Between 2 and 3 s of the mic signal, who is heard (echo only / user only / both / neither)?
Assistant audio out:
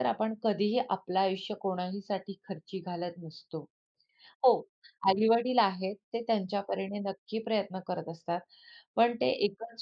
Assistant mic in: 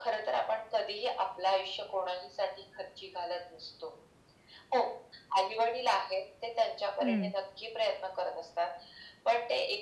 echo only